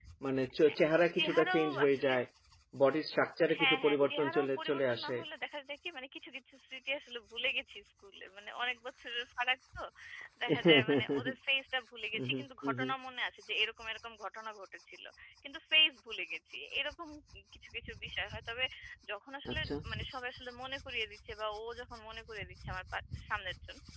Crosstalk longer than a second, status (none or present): present